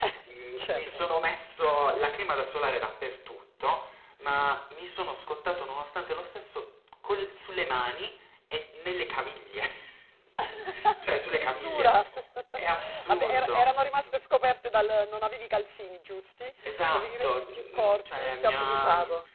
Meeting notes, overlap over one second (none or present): present